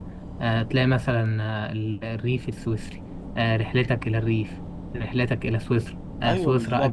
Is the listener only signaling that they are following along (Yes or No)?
Yes